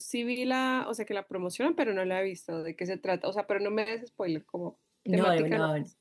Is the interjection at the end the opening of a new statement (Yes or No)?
Yes